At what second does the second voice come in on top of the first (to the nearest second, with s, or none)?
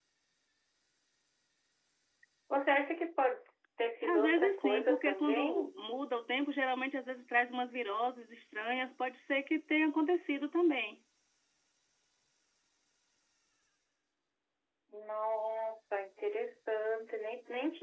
4 s